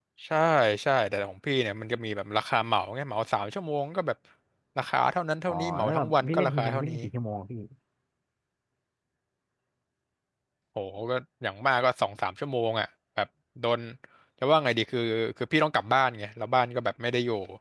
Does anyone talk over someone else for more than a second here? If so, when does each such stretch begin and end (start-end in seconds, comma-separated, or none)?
5.5-7.0